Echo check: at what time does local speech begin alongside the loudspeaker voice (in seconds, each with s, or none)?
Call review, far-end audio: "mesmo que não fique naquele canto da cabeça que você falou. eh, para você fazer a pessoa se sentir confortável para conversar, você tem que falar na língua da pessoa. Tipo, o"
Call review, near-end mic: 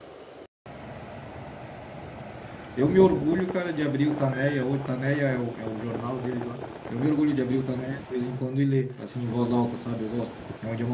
2.7 s